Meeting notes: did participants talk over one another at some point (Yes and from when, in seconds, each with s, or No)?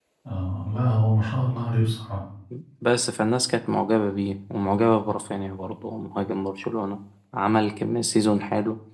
No